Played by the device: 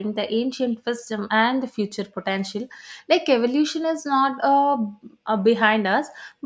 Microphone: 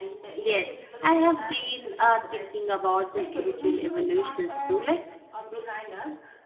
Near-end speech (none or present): present